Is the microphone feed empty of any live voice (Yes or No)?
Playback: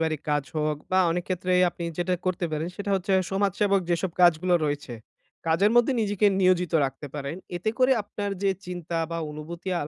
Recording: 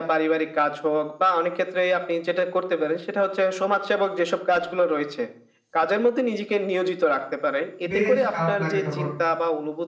No